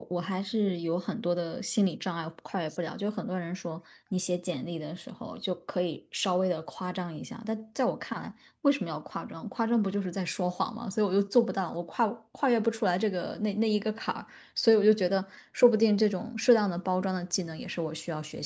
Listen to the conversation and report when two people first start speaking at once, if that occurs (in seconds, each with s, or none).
none